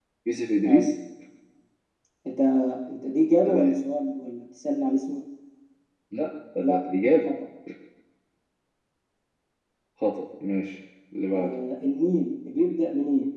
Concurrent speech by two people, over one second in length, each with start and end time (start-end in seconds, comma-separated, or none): none